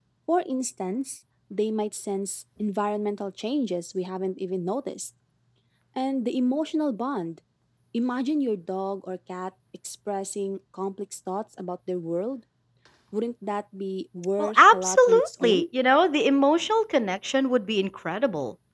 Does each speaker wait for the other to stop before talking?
No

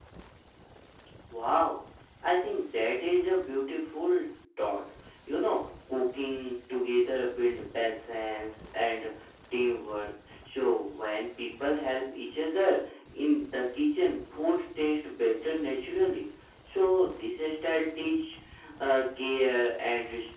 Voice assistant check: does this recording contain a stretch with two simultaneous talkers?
No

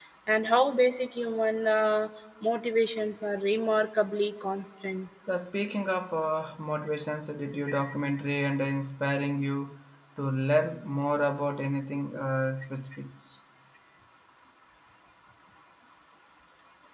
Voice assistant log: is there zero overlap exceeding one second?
Yes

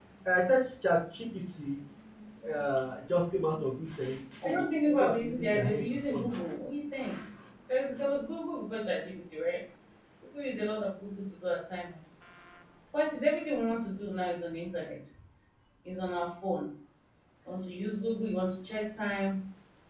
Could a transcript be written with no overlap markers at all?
No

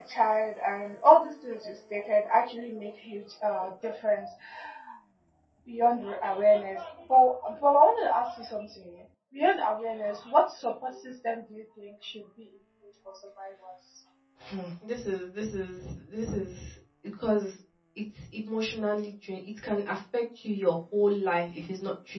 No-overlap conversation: Yes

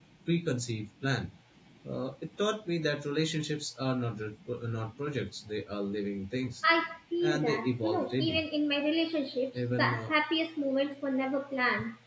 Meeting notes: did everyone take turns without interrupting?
No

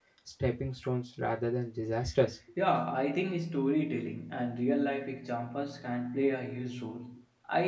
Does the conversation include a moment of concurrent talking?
No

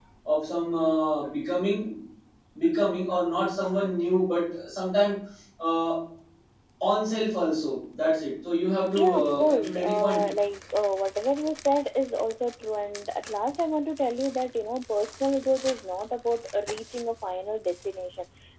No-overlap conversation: No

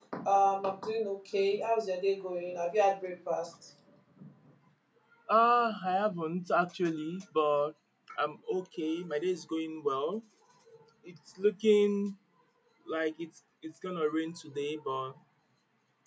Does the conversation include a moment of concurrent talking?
No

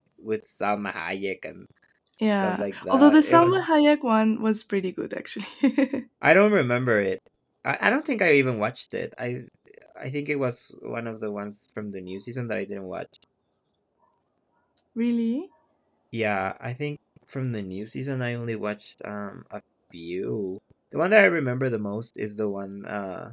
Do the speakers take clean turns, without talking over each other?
No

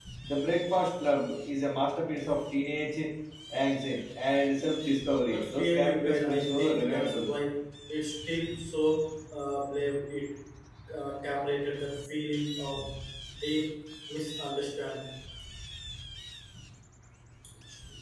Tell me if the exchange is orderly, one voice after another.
No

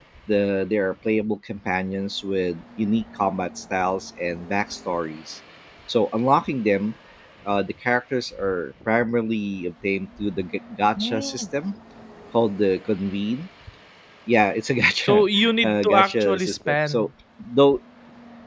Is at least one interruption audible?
Yes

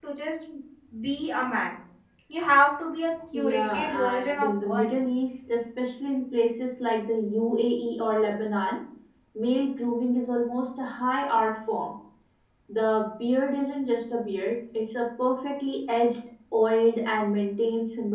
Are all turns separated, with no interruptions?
No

